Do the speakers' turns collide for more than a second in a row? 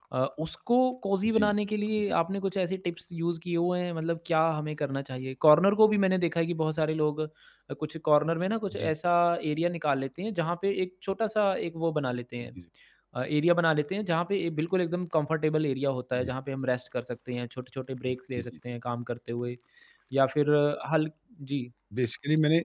No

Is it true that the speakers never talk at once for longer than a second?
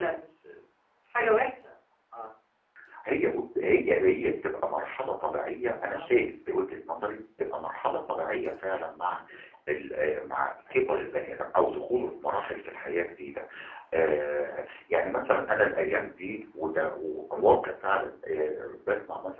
Yes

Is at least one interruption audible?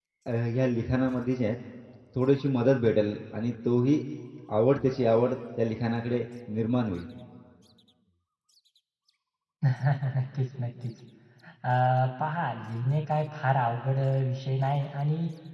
No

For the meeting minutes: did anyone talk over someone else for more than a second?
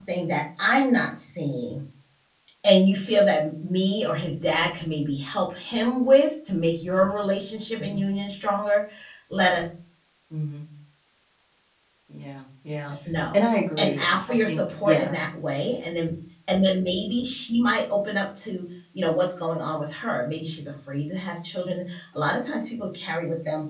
Yes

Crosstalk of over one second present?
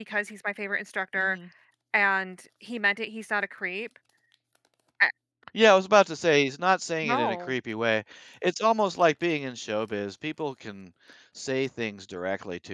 No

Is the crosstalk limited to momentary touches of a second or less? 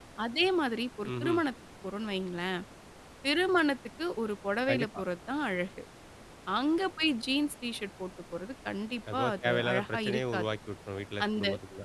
No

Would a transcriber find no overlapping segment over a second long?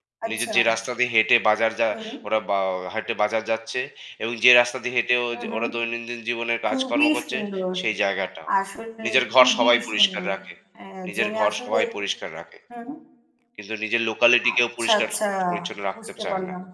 No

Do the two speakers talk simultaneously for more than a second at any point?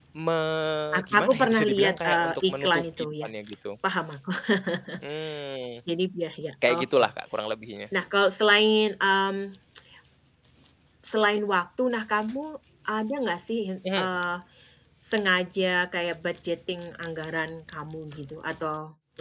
Yes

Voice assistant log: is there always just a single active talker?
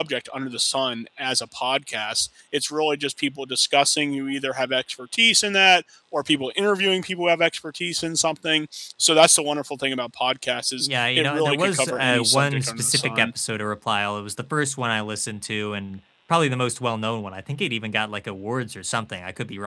No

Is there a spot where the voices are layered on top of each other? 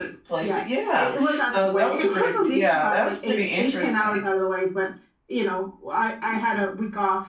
Yes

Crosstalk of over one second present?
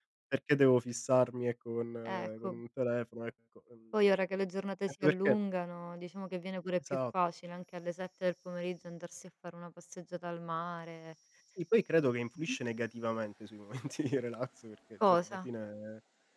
No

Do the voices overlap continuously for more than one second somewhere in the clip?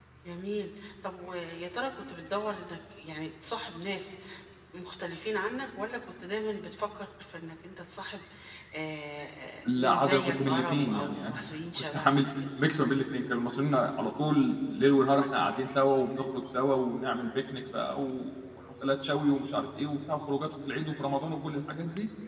Yes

